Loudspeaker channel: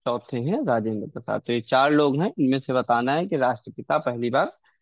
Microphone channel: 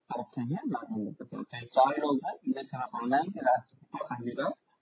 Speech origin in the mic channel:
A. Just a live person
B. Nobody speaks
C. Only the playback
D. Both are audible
C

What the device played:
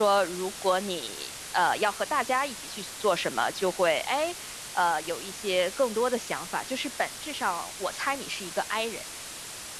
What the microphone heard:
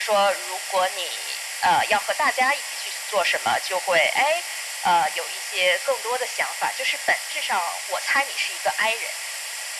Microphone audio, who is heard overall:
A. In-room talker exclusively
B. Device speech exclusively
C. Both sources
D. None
B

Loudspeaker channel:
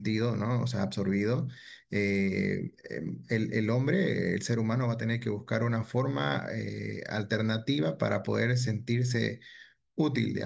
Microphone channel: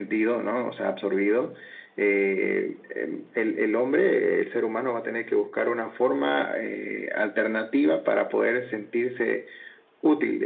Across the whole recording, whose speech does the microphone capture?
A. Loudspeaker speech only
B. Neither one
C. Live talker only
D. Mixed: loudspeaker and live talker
A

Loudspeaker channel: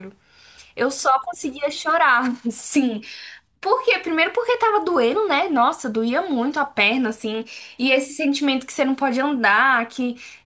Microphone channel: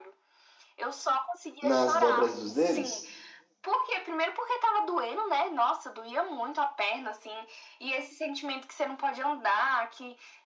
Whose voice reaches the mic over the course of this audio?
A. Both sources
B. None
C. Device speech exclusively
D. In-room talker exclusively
A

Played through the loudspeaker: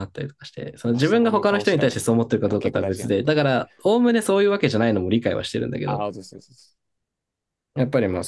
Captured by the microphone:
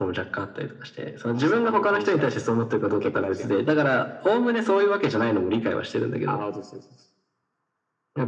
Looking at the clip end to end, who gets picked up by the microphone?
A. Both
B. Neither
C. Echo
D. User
C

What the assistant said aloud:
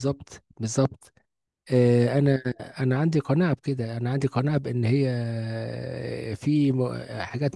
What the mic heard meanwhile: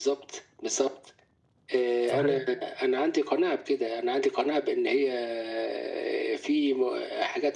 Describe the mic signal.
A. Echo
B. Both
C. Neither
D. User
B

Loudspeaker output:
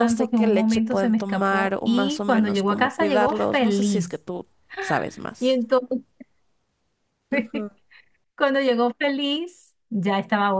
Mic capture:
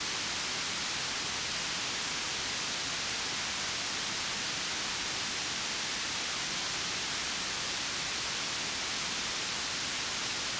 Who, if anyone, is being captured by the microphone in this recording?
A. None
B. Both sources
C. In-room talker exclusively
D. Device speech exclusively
A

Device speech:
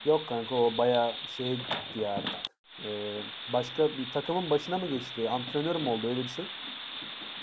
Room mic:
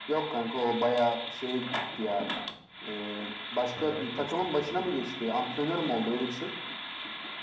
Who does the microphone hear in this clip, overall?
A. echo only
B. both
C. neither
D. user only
B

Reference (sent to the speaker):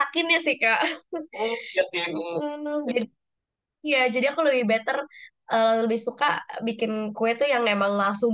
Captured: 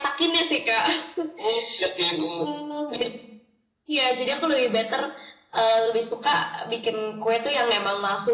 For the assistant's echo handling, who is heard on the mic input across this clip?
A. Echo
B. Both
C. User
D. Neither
A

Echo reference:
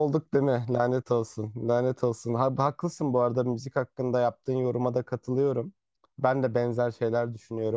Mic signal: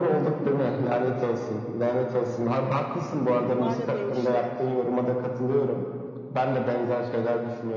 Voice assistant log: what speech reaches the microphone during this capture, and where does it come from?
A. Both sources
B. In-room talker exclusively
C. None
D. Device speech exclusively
A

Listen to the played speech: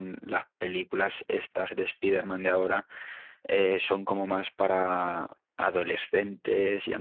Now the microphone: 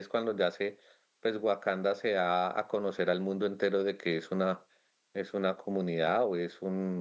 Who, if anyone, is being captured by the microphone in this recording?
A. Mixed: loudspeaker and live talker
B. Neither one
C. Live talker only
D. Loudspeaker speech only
C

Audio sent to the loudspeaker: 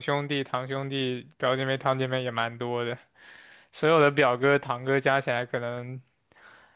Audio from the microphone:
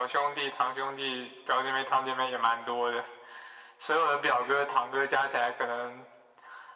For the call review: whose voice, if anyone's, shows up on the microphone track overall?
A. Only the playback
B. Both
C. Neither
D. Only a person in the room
A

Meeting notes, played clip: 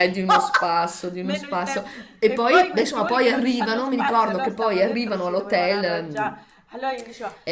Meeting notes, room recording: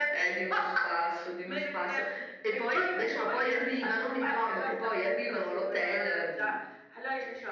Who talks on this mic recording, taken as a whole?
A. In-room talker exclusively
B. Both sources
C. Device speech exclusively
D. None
C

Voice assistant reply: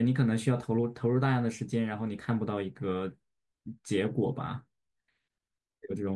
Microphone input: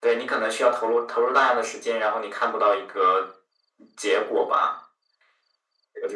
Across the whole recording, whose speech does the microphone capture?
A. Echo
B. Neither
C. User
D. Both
A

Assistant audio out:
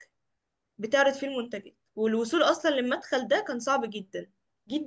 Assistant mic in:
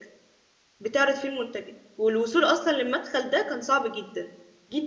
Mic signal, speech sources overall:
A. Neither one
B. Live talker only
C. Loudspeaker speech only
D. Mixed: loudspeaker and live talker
C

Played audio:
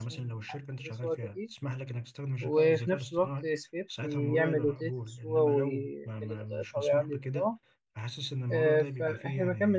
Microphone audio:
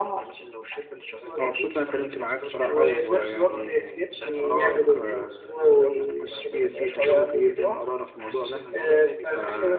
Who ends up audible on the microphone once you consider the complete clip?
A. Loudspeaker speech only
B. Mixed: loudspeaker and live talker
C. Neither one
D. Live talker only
B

